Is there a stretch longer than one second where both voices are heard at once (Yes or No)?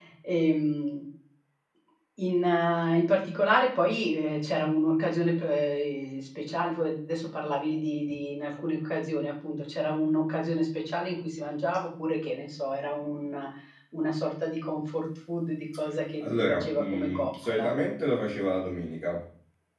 Yes